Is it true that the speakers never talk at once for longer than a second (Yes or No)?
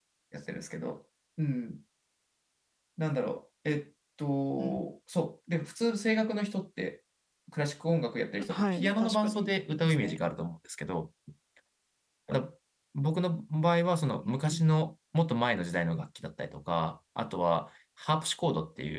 No